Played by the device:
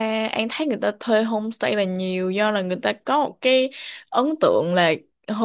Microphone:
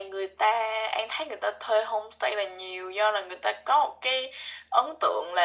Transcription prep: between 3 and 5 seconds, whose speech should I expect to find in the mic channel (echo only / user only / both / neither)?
echo only